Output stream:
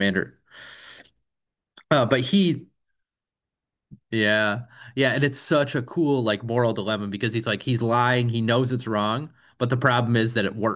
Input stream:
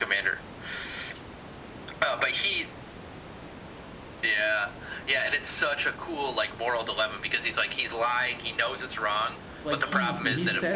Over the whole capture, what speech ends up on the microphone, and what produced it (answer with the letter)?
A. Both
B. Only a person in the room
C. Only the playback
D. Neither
A